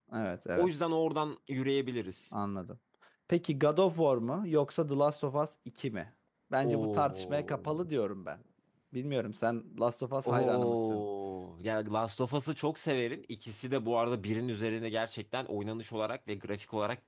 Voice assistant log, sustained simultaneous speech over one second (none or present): present